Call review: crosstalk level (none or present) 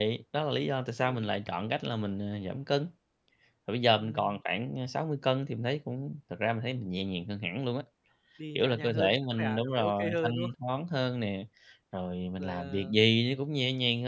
present